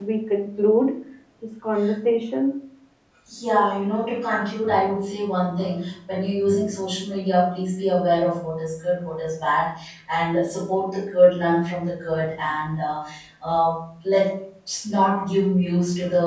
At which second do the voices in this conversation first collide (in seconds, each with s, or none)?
none